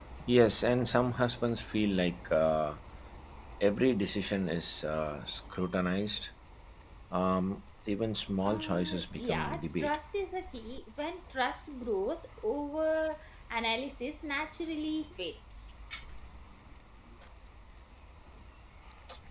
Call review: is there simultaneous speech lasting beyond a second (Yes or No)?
Yes